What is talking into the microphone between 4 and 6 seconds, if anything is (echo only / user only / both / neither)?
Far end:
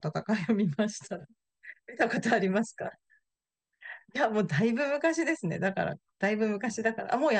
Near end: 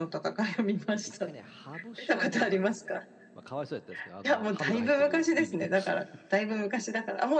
both